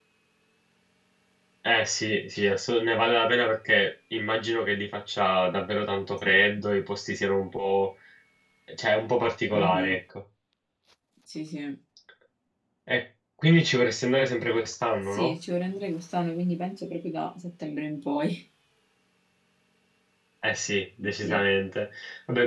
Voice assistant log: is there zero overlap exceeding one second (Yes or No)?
Yes